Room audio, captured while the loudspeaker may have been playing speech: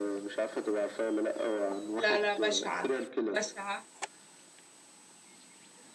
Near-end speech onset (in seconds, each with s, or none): 1.9 s